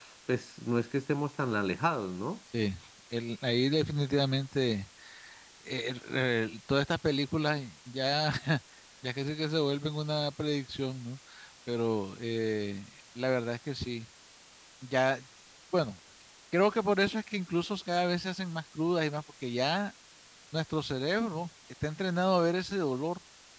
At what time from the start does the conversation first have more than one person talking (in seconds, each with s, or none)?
none